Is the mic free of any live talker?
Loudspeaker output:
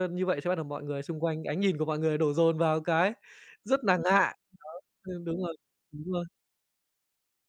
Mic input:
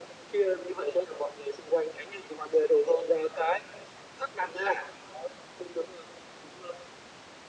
Yes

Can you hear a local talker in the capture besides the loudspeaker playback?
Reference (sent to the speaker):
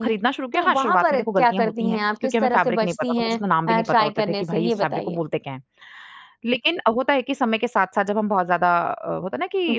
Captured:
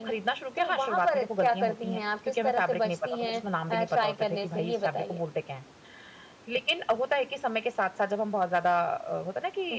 No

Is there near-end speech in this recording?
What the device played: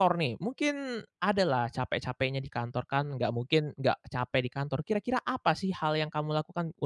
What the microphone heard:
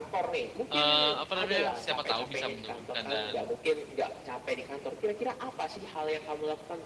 Yes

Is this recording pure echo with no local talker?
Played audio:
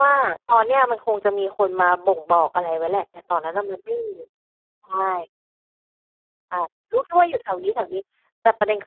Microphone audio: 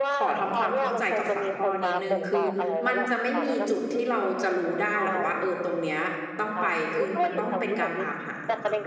No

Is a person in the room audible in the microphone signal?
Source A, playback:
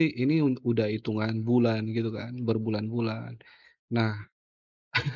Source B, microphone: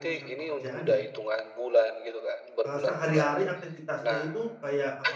Yes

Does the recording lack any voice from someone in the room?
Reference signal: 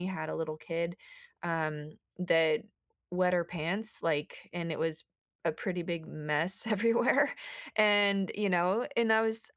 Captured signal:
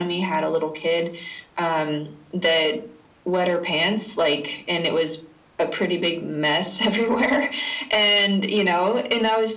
Yes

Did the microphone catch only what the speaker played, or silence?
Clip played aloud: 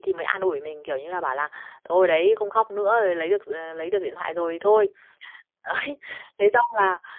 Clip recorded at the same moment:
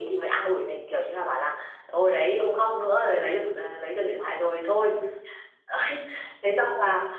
Yes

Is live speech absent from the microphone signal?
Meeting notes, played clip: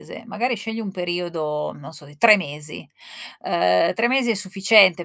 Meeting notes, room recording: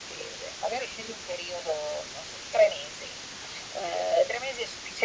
Yes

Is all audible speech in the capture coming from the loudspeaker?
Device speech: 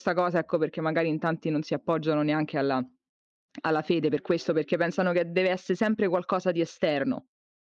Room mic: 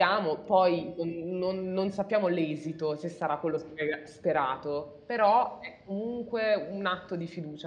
No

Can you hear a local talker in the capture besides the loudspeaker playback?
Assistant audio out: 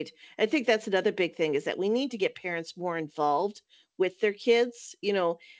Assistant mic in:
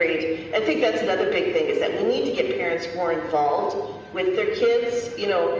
No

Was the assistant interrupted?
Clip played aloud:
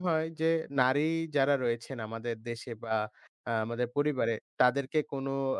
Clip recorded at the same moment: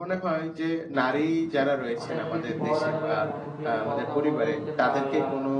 Yes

